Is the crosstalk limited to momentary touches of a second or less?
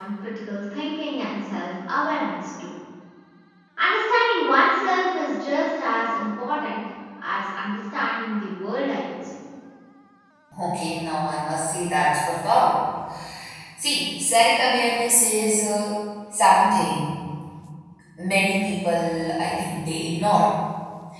Yes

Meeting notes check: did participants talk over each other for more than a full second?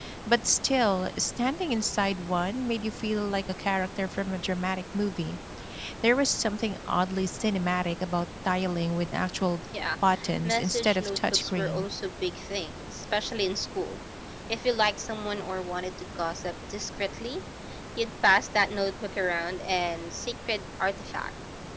Yes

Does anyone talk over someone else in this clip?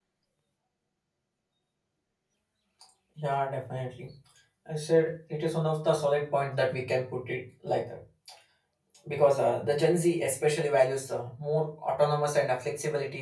No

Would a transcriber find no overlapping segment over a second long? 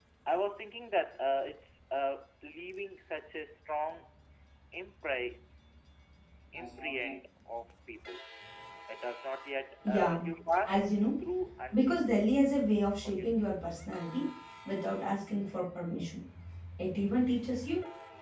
Yes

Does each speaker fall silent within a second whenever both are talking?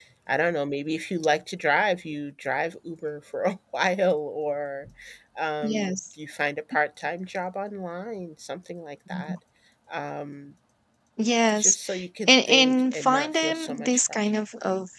No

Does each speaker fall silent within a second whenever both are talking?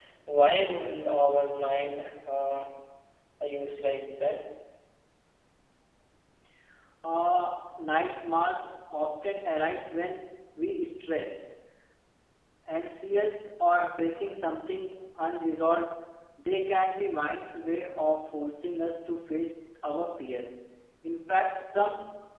Yes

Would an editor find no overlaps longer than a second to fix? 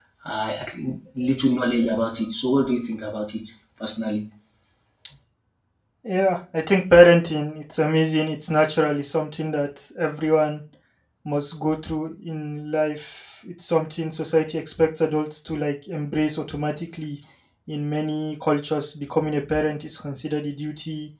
Yes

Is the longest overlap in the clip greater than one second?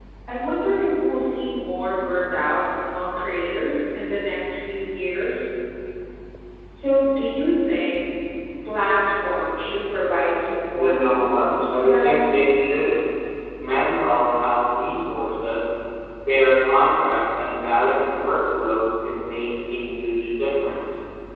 Yes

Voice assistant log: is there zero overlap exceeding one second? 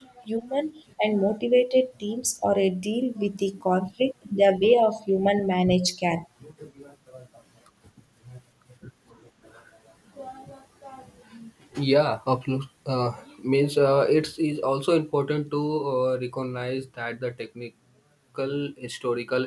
Yes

